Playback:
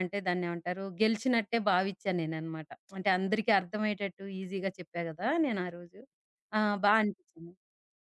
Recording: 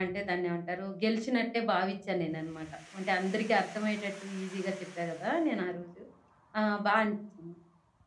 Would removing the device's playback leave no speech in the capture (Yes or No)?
Yes